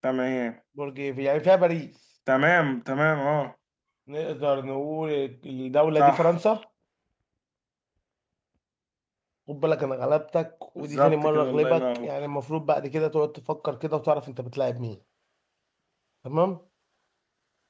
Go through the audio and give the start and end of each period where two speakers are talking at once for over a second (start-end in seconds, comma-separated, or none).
10.8-12.1